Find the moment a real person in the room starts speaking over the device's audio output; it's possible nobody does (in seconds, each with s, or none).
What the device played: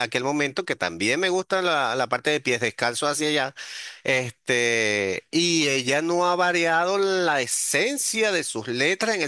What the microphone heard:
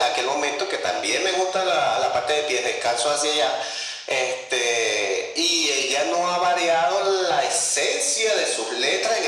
none